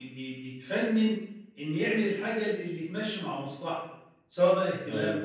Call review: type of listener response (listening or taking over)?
listening